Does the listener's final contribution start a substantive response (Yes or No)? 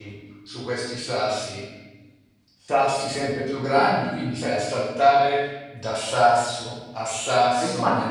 Yes